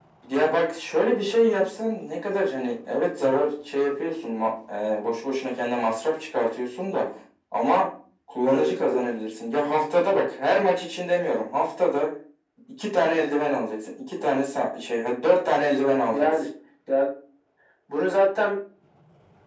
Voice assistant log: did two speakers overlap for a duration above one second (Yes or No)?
No